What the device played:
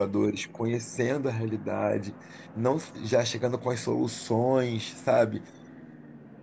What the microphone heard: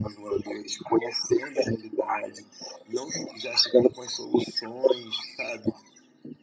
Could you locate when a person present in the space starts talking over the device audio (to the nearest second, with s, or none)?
none